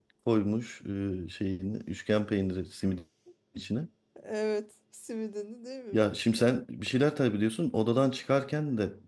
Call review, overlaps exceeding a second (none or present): none